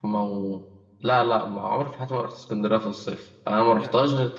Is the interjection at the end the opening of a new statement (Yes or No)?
No